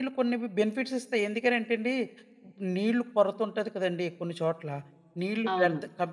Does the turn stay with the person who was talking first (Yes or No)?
Yes